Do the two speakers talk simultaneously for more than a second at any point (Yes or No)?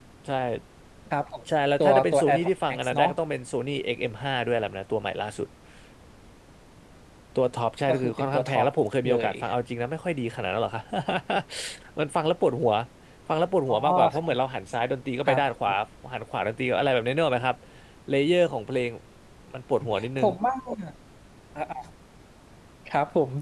Yes